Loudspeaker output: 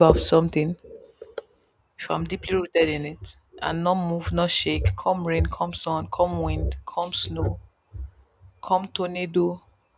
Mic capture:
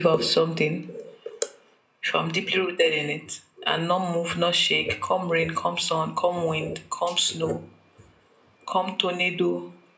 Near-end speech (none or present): none